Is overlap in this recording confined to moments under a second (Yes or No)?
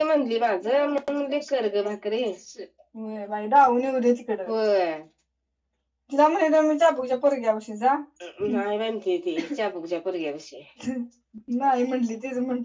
Yes